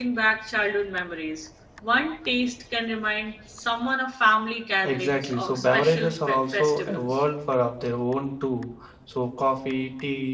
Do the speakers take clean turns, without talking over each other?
No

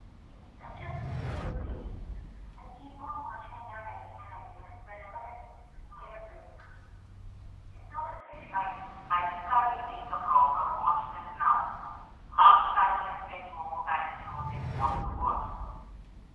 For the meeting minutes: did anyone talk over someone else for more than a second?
No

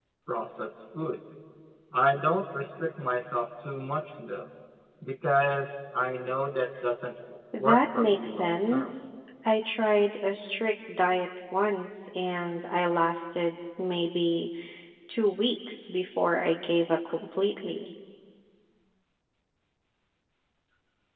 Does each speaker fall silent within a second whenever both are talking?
No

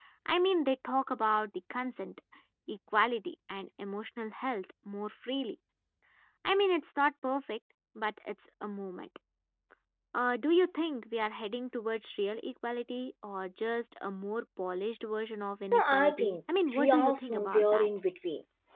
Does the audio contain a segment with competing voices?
Yes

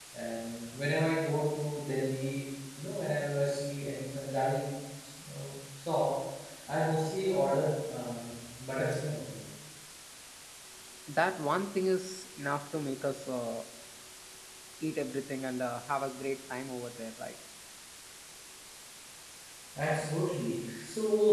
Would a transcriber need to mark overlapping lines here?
No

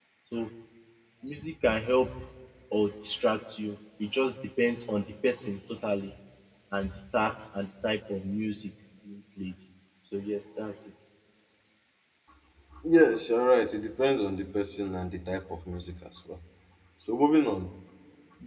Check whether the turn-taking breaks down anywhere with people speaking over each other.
No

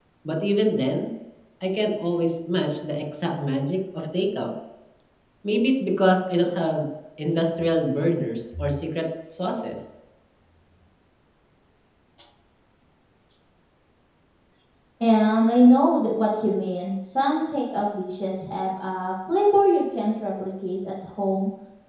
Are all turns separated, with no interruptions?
Yes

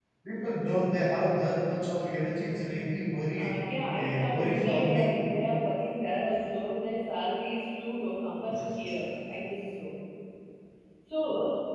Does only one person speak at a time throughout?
No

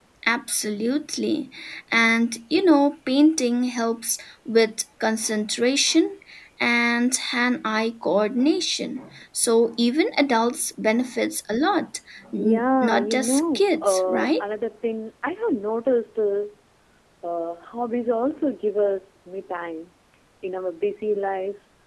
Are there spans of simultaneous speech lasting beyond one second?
Yes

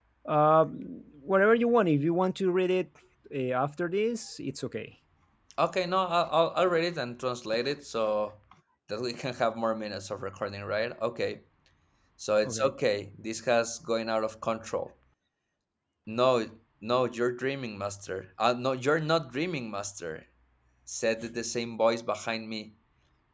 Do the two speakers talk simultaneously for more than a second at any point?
No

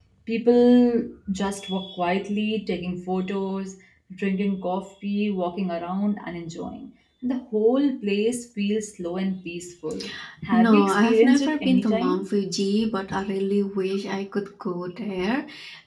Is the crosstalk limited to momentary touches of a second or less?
No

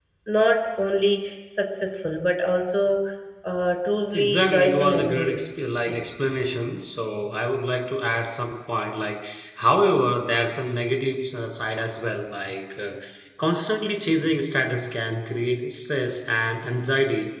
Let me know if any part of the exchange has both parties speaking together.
Yes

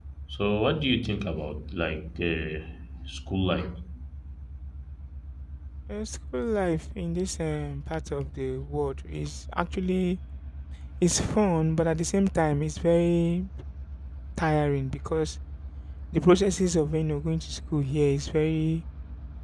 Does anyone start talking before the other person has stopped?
No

